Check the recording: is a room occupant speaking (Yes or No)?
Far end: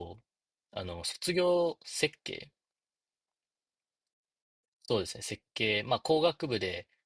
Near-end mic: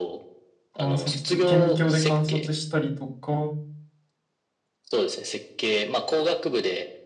Yes